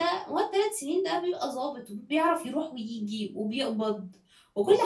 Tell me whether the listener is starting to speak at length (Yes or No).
Yes